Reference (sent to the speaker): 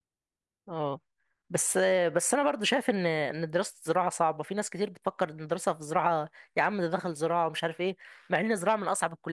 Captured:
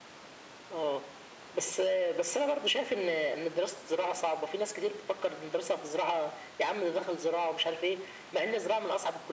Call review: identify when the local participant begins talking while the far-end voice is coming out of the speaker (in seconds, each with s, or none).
none